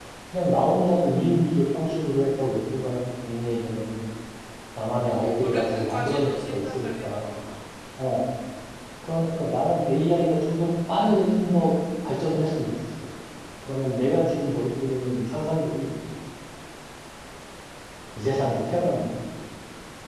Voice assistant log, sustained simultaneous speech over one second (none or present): present